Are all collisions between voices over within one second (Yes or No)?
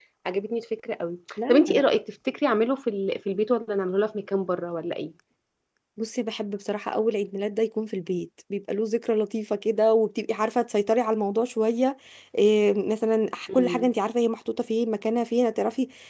Yes